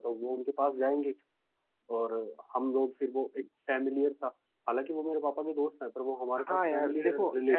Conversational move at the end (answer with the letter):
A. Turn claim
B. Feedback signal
A